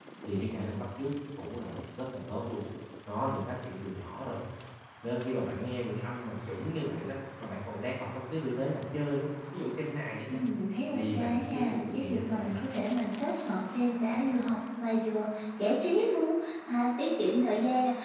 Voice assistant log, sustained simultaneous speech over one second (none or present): present